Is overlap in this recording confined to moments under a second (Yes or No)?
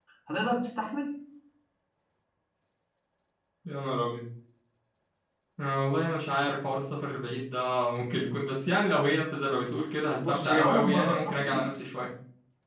No